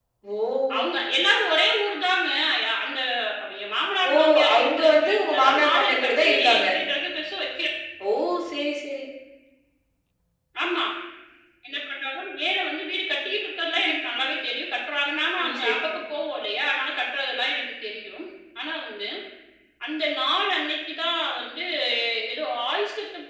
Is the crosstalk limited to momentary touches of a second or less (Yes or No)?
No